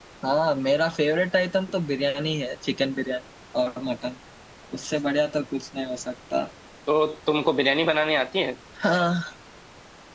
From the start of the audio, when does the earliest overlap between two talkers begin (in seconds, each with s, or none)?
none